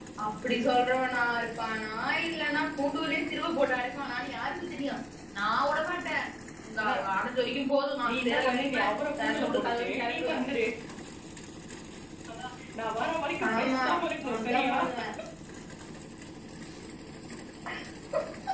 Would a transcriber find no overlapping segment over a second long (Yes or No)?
No